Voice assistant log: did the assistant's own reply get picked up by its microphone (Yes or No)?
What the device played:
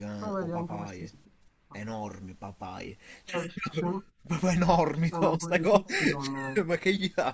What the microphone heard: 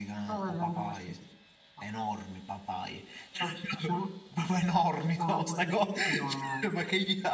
Yes